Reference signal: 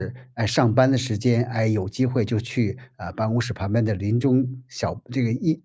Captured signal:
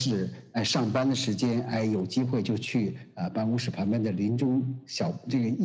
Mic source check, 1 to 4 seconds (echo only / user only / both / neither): echo only